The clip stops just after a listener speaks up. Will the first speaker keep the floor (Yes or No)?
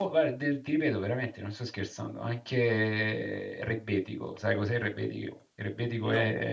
Yes